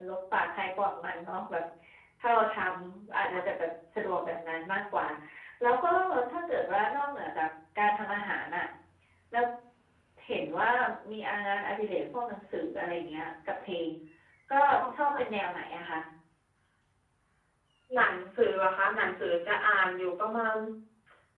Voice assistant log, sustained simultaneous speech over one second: none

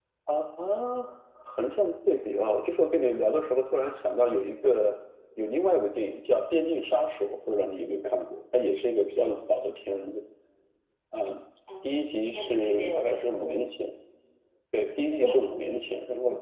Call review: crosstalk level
present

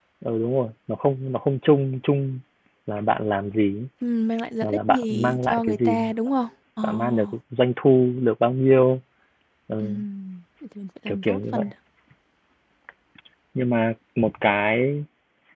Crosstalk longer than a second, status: present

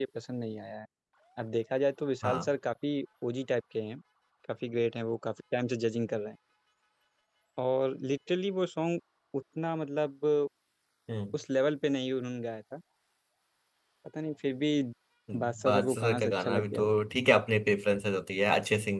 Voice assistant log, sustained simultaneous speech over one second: present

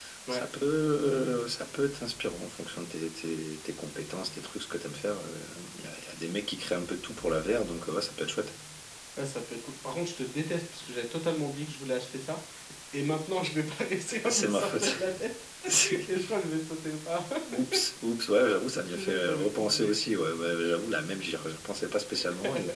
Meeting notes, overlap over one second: present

